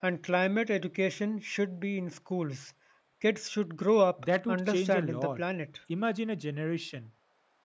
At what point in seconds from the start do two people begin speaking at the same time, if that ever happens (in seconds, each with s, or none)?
4.2 s